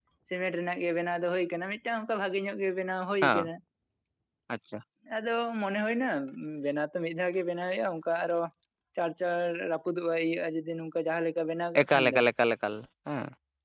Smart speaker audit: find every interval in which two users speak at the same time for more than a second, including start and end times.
none

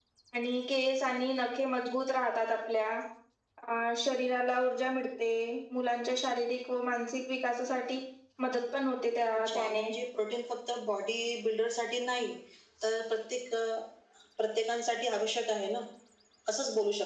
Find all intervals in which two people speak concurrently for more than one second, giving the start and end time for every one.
none

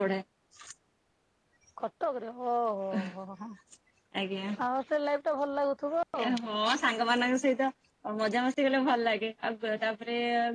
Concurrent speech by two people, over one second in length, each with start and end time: none

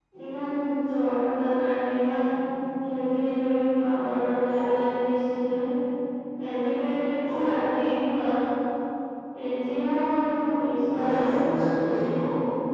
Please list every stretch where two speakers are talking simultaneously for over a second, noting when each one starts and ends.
10.6-12.2

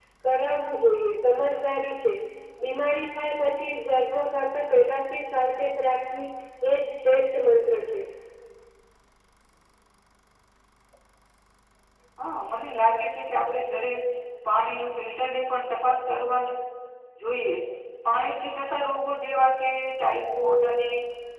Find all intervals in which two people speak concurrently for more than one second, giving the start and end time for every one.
none

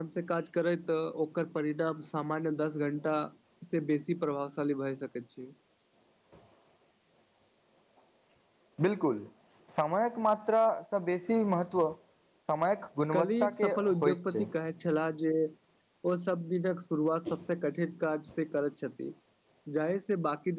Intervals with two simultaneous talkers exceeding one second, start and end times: 13.1-14.4

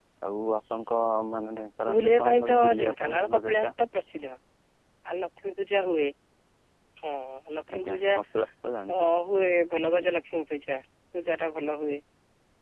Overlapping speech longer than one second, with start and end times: 1.9-3.7

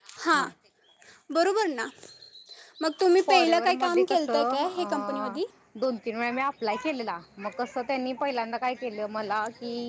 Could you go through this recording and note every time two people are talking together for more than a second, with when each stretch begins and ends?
3.3-5.4

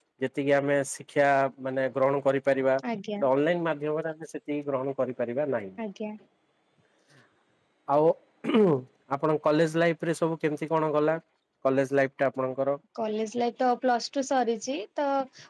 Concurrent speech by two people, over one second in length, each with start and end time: none

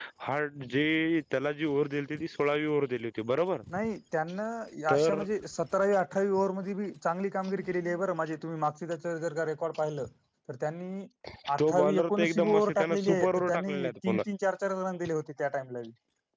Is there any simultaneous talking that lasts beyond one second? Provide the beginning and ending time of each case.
11.6-14.2

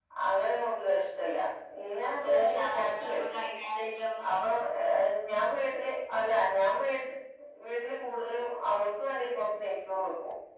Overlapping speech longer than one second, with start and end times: 2.1-3.5

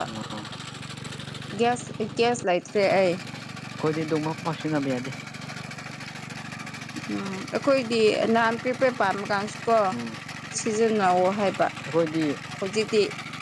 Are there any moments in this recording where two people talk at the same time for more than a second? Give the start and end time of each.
none

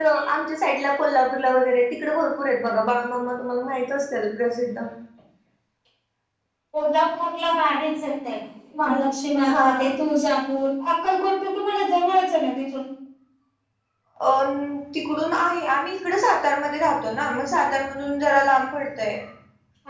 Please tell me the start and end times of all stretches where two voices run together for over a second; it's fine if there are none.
none

